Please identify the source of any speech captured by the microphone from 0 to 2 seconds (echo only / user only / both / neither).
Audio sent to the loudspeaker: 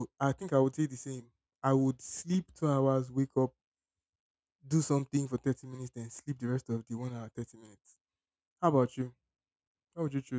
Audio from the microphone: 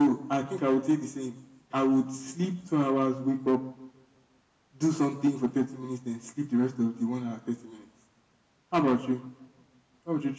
echo only